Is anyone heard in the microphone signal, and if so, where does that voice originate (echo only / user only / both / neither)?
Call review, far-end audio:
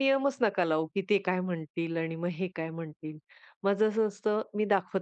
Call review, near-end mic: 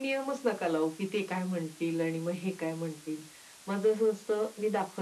echo only